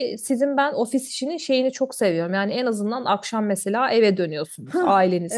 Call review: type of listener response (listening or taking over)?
taking over